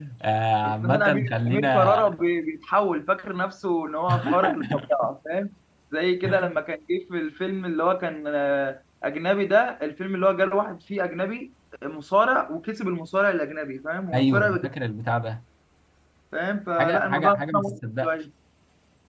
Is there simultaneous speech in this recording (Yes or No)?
Yes